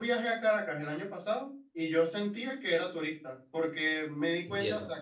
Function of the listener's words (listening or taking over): listening